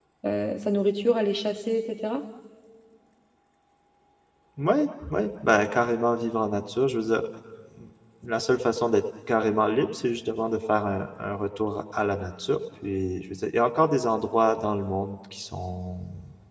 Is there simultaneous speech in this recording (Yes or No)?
No